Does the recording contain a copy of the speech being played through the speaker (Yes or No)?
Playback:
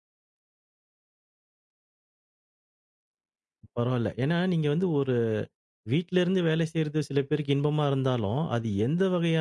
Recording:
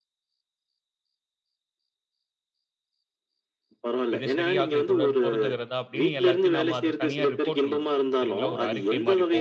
Yes